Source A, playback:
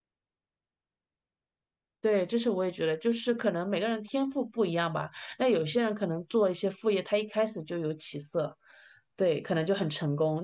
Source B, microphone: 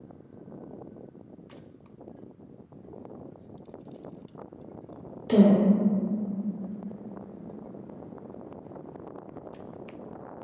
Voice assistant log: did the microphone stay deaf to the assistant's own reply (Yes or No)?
Yes